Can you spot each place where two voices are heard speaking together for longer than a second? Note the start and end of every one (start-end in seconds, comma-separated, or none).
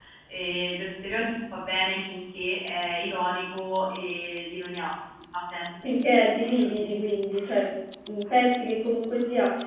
none